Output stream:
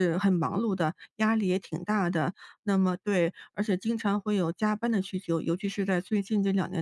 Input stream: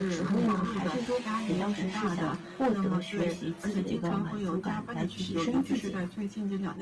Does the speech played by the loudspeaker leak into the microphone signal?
Yes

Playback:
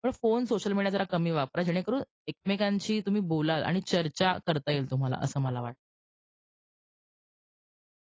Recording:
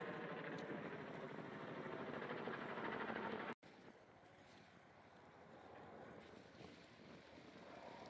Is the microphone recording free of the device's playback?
Yes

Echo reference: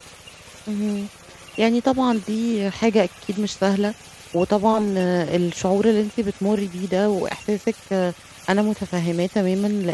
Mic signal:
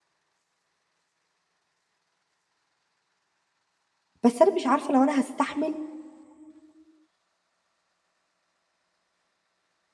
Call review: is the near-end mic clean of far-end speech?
Yes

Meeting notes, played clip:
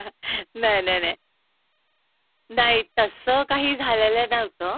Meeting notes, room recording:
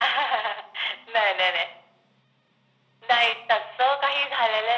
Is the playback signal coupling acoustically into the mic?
Yes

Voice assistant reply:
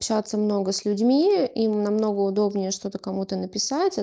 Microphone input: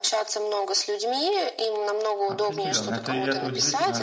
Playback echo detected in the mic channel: Yes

